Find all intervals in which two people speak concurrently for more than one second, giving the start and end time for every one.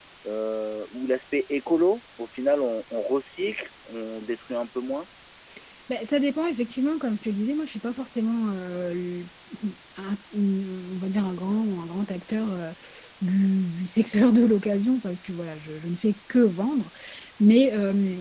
none

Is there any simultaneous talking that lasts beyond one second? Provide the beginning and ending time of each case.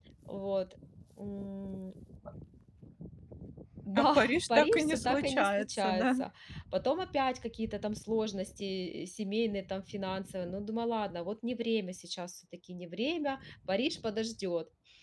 4.0-6.1

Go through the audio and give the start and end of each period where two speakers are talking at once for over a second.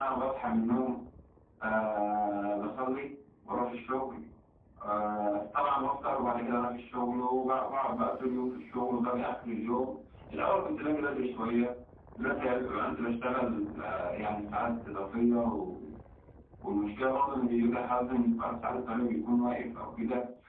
none

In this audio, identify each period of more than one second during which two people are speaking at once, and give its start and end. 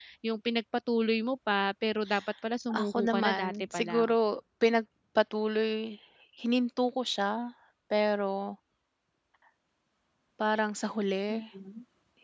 2.8-4.1

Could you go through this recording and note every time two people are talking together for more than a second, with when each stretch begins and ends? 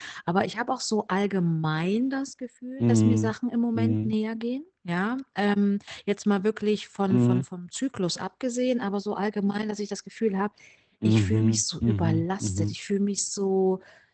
11.0-12.7

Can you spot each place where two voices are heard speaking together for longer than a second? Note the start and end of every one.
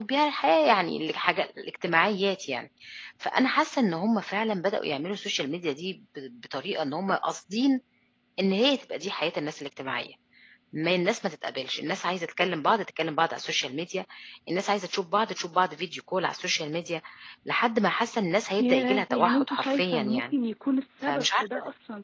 18.6-20.3

